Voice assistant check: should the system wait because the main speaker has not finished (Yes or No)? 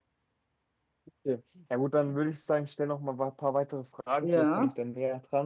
Yes